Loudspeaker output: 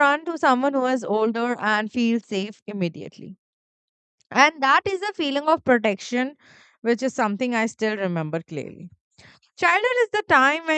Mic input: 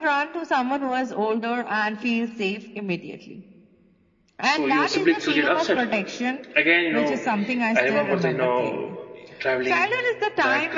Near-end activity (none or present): present